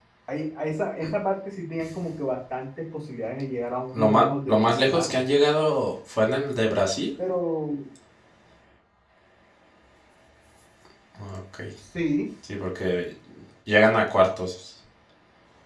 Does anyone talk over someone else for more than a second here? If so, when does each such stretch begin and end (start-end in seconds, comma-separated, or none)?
3.9-5.2